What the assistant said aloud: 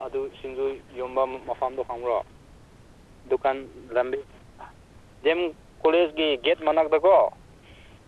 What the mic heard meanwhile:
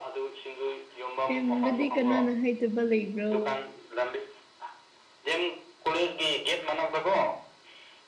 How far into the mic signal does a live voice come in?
1.2 s

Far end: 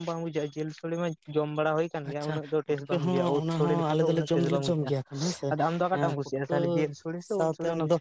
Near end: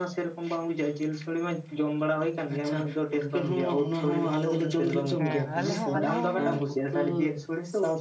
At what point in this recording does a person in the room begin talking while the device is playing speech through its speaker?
5.2 s

